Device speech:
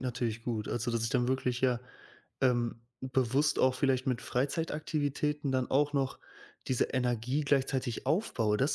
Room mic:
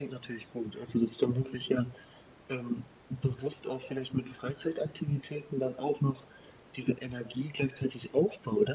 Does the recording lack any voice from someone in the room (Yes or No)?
Yes